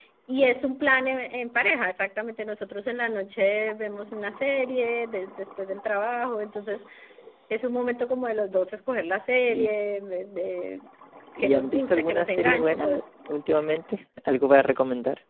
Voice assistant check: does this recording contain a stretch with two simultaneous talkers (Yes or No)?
Yes